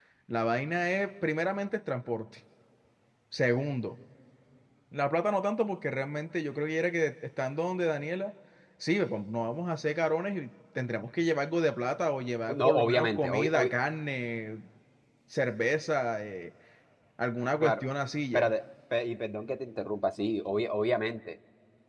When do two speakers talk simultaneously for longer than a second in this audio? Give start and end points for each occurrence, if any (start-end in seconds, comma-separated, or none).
12.5-13.8